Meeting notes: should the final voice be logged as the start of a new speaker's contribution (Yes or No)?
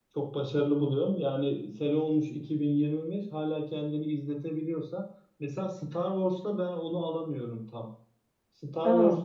No